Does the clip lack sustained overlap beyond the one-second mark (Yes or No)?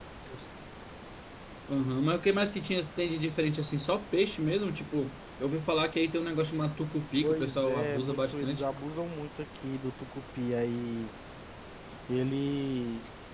No